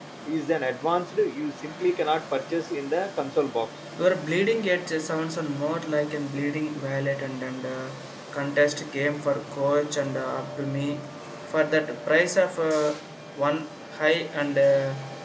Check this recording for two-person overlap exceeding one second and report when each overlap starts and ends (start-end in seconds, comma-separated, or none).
none